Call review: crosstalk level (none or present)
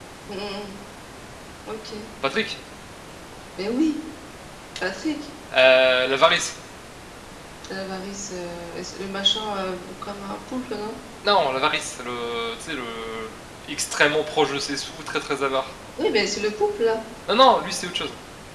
none